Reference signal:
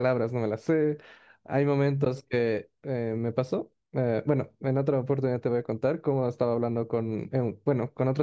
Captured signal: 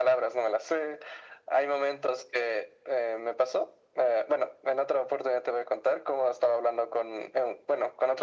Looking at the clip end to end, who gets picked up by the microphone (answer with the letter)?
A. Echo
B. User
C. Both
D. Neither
A